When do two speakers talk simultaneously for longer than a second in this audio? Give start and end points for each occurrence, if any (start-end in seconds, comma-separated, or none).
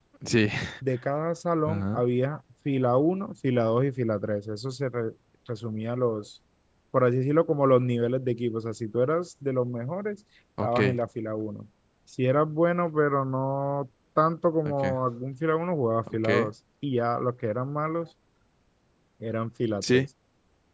none